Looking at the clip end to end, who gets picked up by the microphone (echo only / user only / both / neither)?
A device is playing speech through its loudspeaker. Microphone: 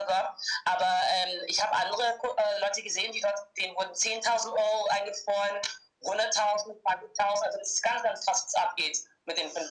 echo only